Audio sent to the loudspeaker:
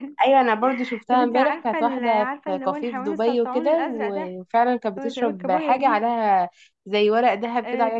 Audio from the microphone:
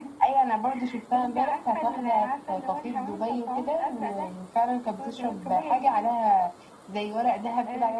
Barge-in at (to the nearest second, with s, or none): none